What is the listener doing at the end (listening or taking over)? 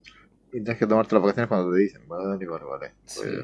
taking over